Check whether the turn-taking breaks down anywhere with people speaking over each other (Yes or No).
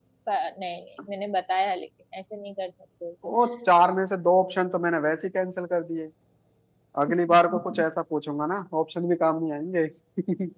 No